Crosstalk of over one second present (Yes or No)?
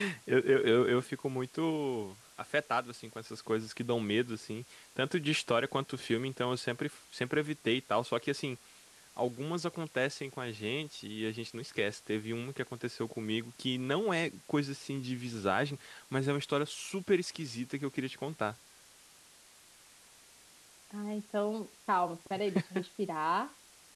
No